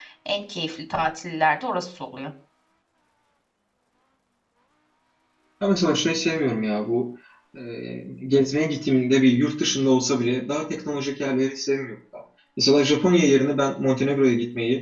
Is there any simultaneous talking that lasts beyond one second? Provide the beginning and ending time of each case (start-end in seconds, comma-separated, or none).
none